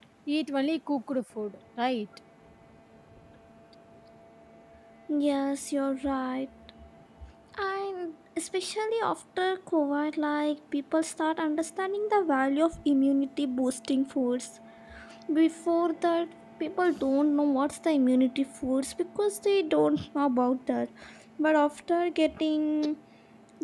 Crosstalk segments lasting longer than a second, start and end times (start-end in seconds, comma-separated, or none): none